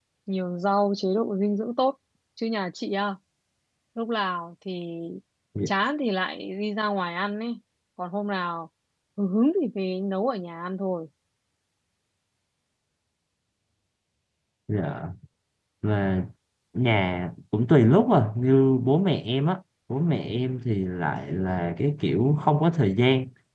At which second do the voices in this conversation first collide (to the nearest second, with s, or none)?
none